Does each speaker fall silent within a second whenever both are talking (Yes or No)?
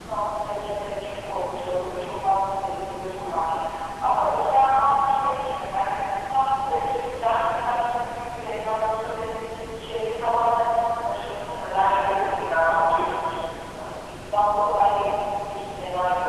No